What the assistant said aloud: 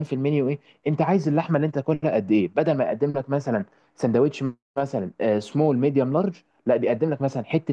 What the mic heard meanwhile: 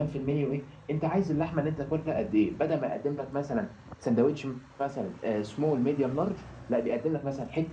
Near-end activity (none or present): none